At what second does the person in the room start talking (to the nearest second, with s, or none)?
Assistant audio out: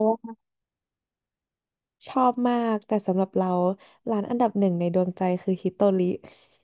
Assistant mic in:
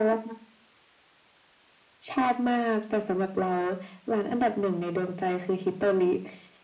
none